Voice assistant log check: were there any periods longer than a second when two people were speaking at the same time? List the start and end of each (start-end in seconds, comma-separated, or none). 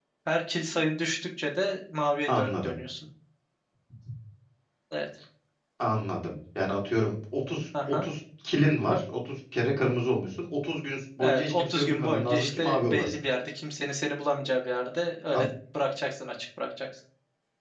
11.2-13.2